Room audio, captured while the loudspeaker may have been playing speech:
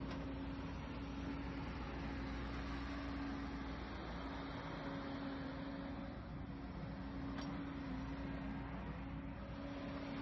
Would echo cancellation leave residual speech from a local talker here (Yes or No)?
No